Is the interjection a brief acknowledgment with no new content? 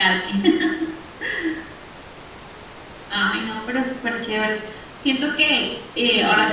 No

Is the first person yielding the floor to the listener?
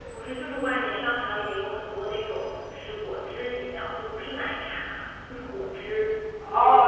Yes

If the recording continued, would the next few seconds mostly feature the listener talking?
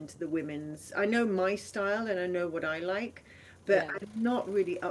No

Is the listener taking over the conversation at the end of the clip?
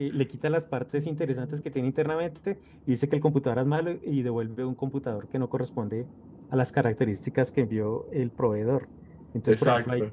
No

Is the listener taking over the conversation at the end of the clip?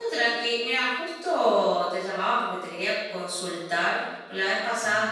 No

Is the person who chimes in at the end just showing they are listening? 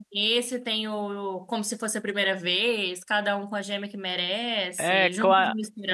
No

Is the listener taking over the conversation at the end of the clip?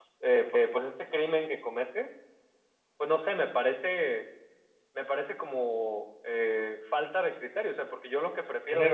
No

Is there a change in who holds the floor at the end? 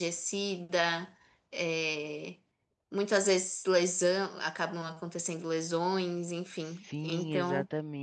Yes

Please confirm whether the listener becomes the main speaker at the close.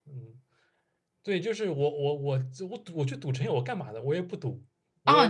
Yes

